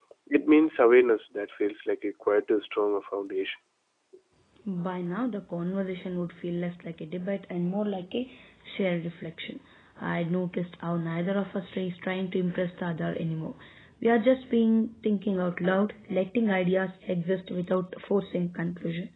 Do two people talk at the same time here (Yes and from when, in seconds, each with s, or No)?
No